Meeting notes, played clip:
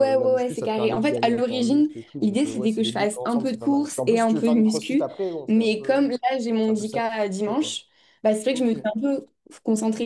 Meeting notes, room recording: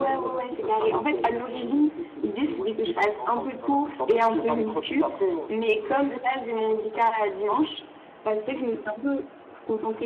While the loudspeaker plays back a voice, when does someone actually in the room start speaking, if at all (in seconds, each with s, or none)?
none